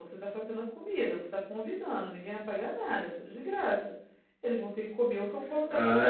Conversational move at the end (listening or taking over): taking over